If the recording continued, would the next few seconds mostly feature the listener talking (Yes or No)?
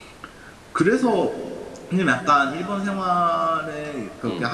No